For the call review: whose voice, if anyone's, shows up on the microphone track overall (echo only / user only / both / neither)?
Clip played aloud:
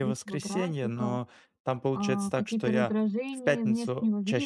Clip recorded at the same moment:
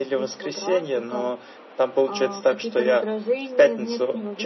echo only